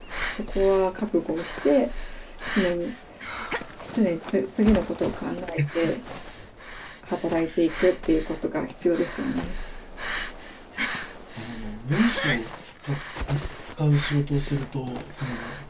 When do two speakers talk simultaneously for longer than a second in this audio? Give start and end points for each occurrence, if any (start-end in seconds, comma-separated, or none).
none